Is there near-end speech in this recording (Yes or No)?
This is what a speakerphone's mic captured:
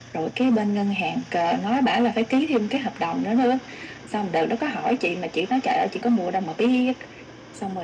No